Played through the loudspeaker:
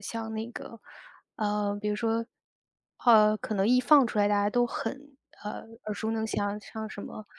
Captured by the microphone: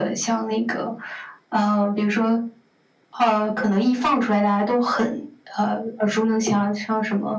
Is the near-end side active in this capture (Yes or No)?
No